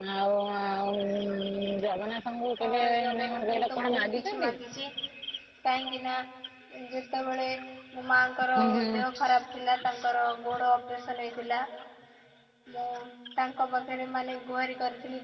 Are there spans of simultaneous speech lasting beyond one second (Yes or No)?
Yes